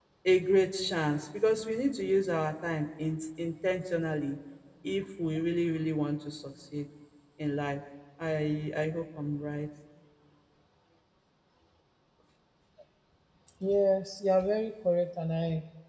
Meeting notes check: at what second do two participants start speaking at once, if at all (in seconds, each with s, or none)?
none